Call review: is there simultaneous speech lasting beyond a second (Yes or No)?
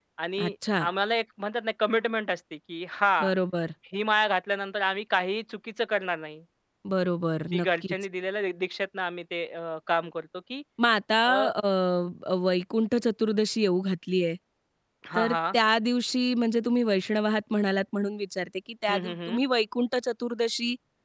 No